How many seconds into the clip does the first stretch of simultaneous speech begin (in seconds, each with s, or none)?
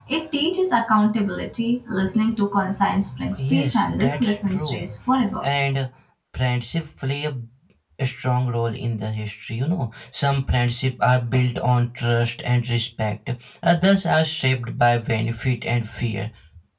3.4 s